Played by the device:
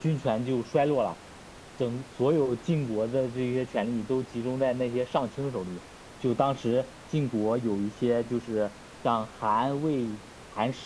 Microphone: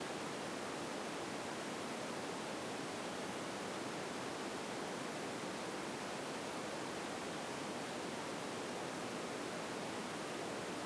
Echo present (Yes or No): No